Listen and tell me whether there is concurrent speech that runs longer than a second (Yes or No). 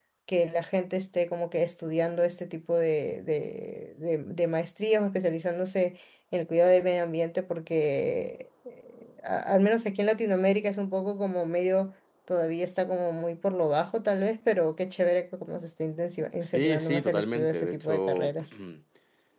Yes